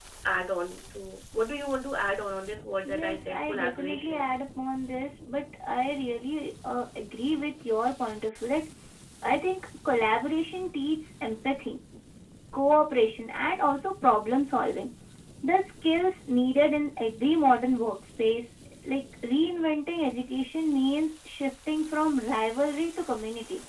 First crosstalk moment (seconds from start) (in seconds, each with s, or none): 2.8 s